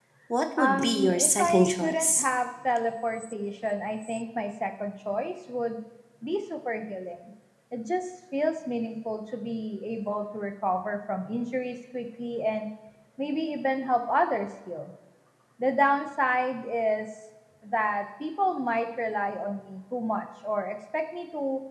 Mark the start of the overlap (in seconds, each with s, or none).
0.6 s